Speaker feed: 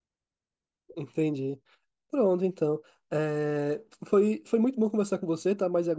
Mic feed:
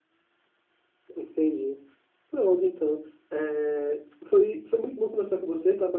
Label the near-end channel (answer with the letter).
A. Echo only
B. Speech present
A